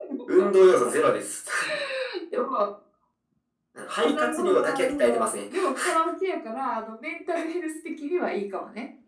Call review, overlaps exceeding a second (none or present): present